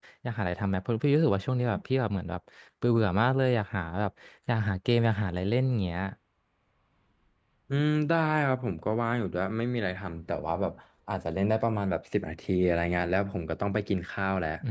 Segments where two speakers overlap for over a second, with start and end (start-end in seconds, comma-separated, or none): none